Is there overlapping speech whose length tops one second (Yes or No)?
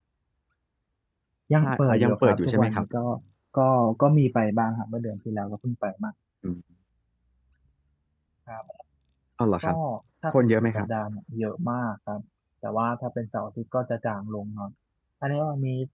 Yes